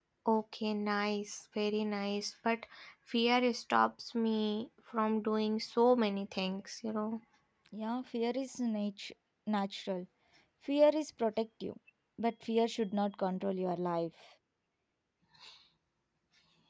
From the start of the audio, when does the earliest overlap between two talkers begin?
none

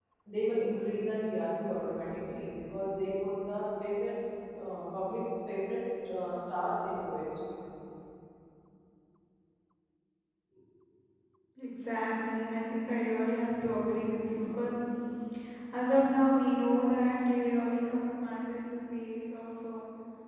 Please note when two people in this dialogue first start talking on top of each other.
none

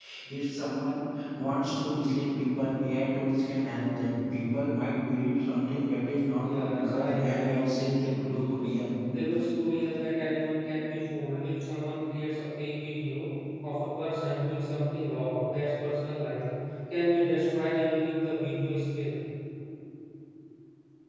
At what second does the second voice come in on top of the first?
6.4 s

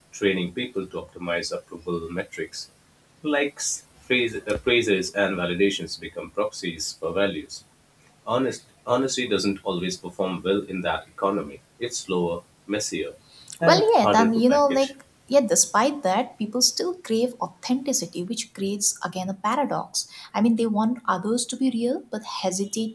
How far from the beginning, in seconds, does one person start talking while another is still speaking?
13.6 s

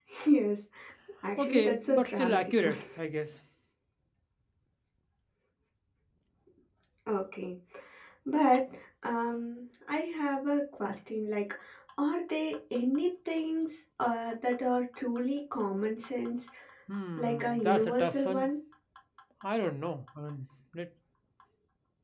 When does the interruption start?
1.4 s

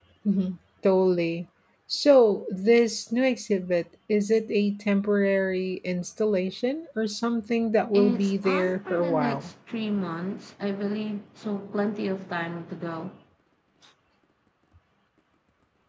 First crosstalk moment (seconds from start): 7.9 s

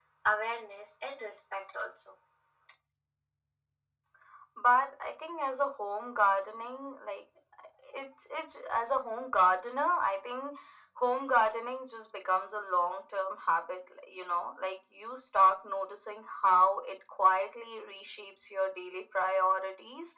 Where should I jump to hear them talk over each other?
none

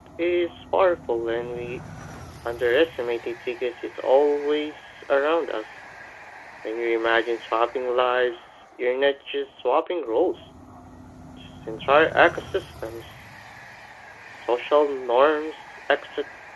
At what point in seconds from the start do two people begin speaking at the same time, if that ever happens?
none

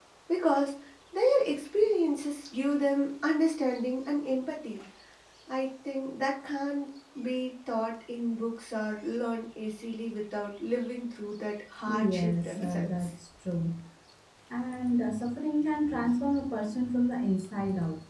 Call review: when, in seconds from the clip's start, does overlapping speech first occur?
11.9 s

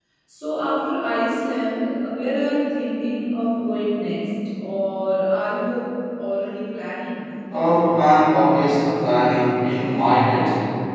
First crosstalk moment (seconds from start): none

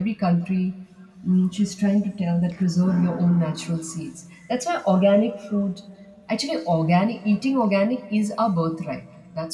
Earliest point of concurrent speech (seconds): none

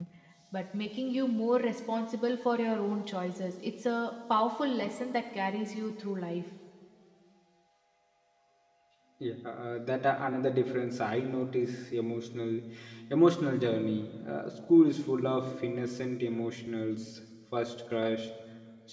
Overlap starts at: none

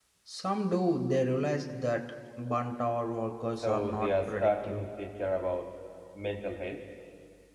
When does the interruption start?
3.6 s

